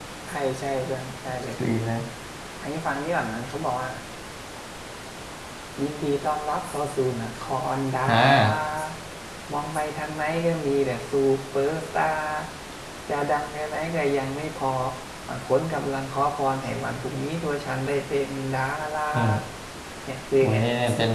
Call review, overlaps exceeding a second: none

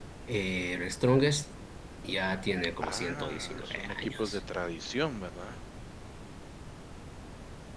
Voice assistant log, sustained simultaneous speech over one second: present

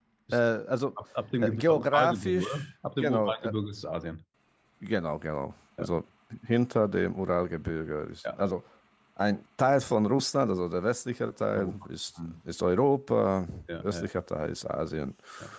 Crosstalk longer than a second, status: present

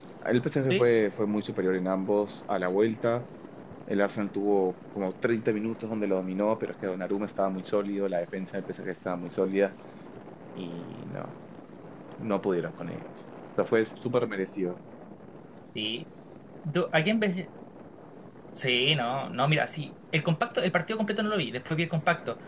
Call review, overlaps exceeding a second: none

